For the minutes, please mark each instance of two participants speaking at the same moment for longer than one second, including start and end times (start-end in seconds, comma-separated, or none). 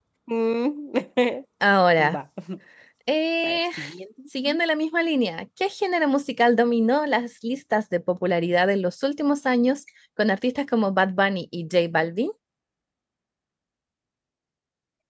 none